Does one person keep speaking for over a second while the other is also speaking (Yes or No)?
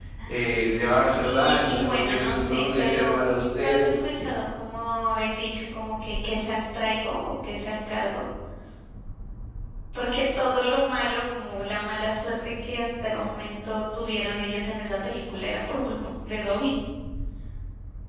Yes